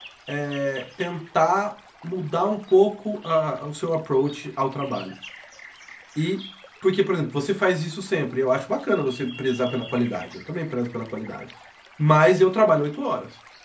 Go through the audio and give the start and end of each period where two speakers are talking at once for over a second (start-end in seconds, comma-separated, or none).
none